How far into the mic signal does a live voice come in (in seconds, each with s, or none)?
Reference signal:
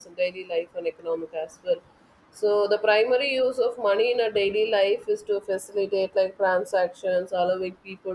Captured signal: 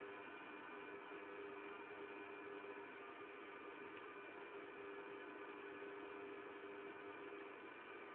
none